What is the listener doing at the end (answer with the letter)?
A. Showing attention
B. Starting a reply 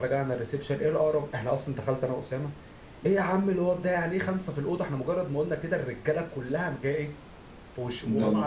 A